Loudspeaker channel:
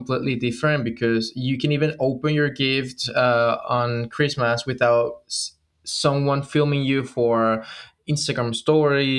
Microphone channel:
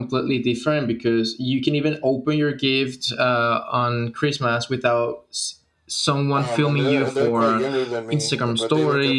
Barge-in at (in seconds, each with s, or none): 6.3 s